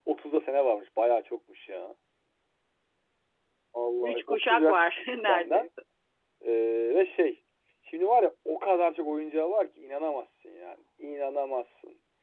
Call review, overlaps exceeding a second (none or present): present